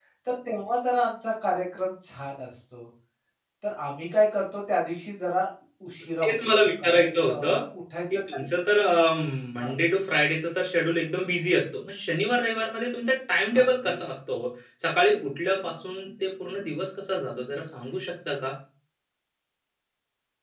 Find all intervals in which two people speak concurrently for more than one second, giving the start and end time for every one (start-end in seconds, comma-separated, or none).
6.2-7.6